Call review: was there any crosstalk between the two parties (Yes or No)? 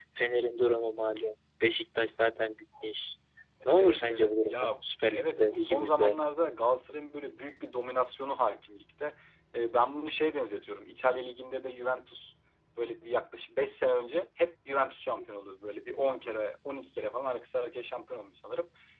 Yes